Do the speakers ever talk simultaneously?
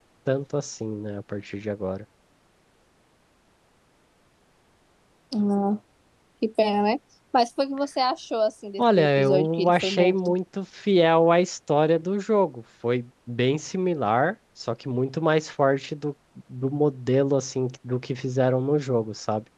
Yes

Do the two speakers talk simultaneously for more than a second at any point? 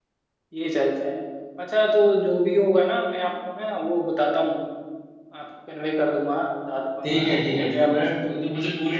Yes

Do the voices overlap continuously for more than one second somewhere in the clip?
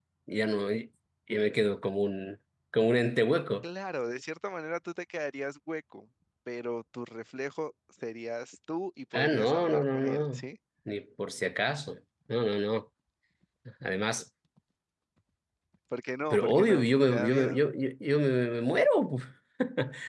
Yes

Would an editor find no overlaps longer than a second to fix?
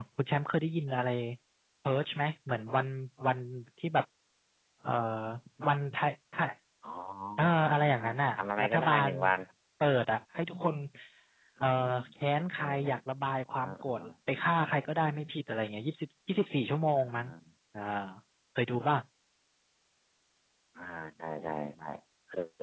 No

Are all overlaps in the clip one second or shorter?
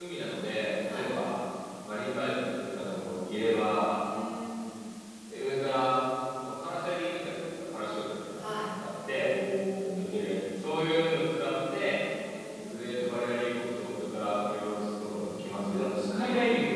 Yes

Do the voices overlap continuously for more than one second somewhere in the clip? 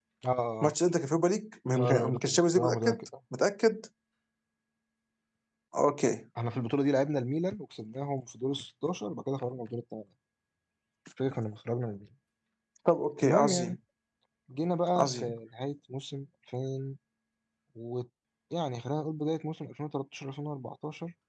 Yes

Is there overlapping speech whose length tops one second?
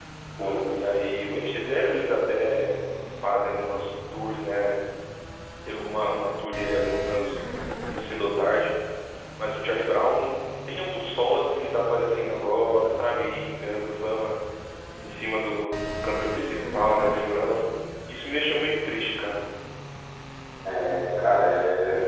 No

